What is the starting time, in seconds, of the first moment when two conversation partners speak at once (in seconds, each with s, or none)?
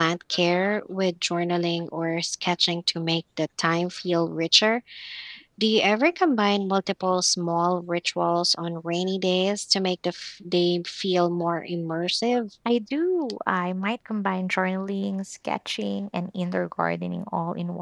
none